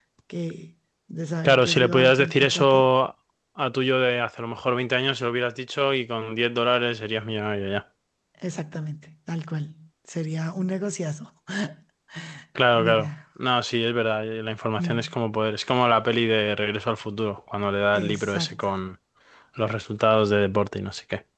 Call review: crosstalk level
present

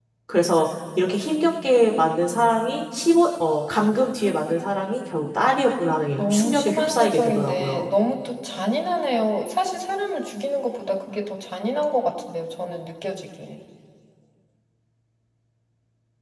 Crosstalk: present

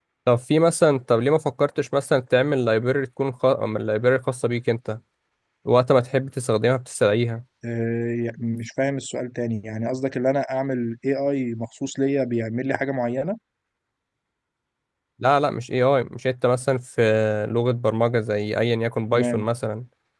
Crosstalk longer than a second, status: none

